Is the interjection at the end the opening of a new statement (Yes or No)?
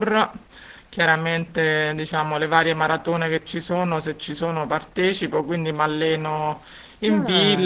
No